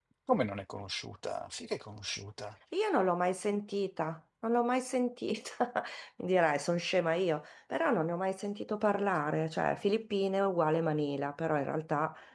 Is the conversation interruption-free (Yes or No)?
Yes